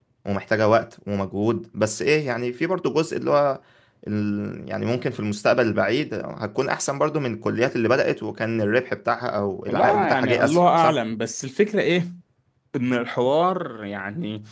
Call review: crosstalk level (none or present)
present